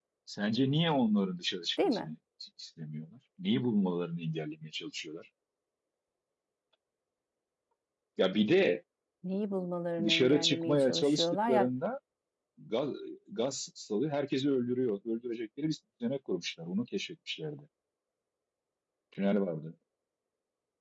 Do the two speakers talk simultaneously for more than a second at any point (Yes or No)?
Yes